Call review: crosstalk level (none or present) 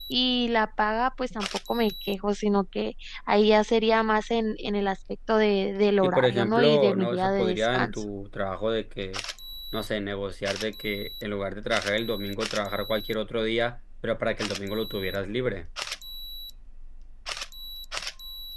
present